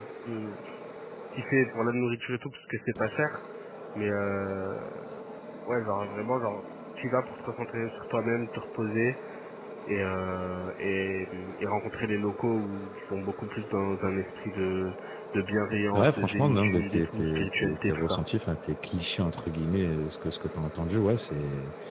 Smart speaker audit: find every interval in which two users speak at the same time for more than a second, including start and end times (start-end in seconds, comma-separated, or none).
15.9-18.2